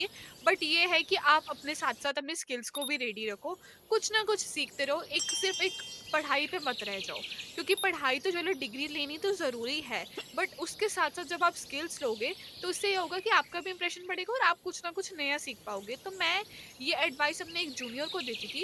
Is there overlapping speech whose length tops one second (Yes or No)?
No